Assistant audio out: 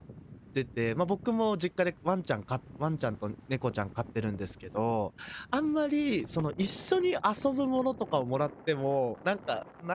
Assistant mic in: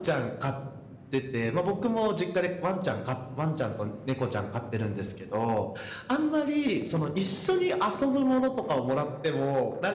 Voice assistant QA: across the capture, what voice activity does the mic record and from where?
echo only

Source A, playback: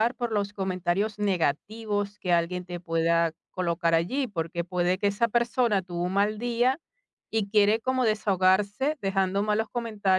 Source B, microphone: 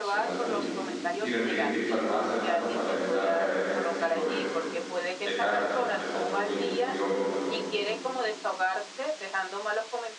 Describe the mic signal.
both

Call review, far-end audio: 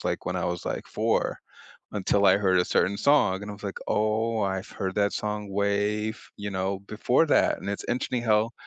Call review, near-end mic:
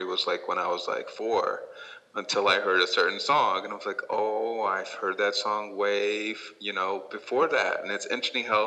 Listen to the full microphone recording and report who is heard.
echo only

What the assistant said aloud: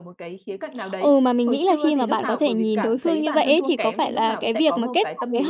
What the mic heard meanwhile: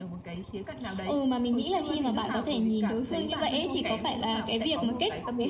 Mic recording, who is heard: echo only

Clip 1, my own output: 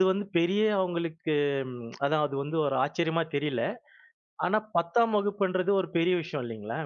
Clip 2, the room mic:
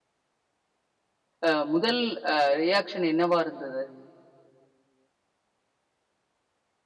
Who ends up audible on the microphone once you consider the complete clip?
user only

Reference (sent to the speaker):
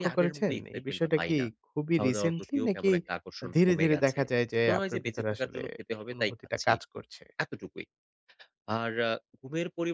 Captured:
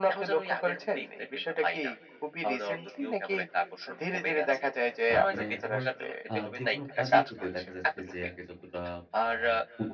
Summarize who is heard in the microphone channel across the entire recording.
both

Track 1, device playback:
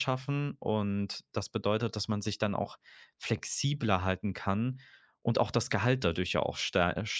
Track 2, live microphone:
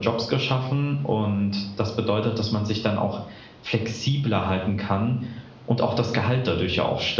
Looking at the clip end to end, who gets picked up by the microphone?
echo only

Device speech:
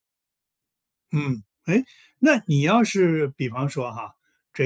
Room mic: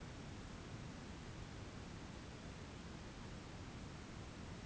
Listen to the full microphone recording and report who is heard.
neither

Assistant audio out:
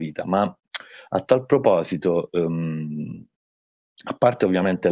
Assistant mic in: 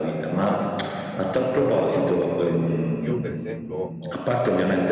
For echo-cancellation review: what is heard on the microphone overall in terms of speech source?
both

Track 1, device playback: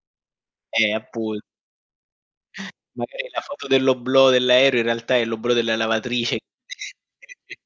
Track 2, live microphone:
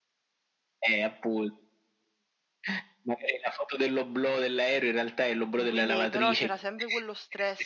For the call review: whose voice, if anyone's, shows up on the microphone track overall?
both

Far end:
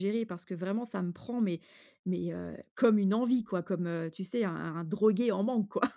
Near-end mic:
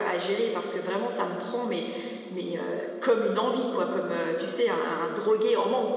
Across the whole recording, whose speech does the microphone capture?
echo only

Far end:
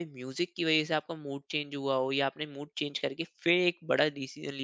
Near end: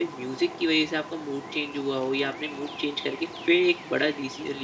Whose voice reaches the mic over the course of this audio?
echo only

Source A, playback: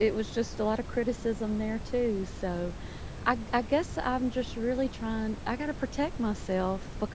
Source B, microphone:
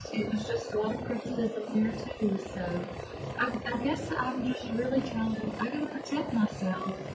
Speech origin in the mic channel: echo only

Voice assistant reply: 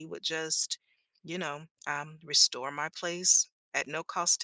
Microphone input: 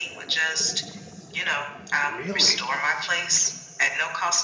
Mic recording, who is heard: both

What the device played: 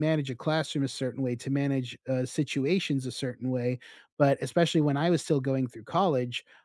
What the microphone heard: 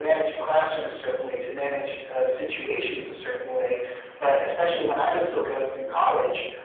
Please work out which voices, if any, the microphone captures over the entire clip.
echo only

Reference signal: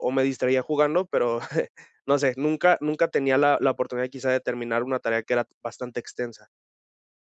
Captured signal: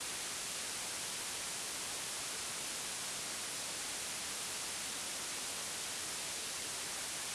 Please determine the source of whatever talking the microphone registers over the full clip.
neither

